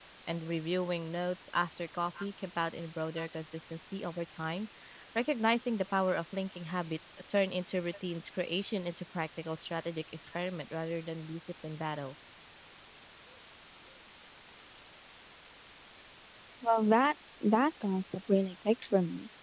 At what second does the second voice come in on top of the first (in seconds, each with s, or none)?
none